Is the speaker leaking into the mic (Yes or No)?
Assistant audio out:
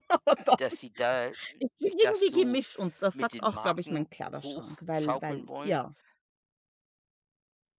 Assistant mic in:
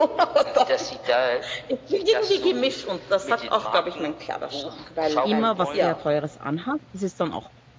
Yes